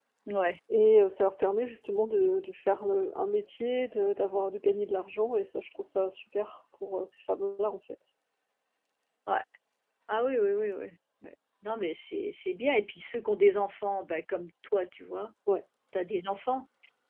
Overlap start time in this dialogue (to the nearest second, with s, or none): none